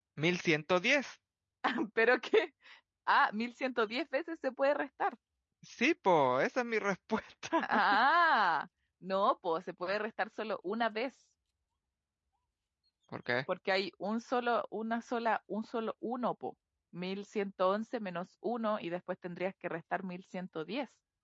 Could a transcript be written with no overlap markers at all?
Yes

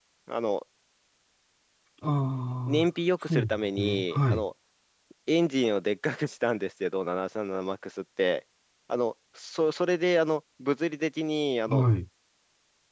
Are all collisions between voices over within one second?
No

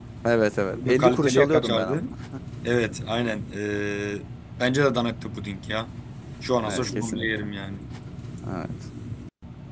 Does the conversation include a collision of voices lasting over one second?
Yes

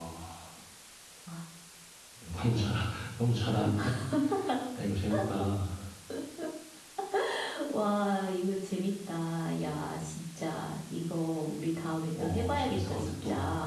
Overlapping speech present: Yes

